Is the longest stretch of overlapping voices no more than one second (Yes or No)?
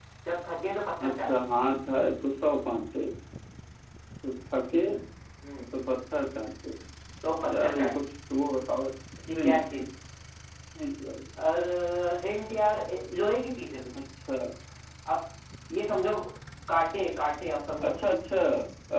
Yes